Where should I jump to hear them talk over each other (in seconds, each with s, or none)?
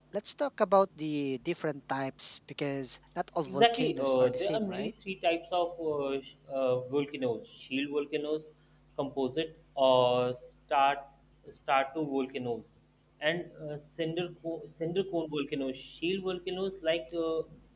3.5 s